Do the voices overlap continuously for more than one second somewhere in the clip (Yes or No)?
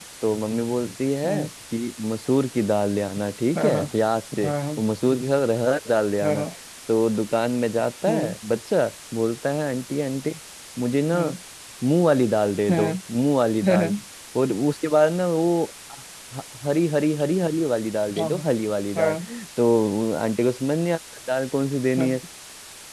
No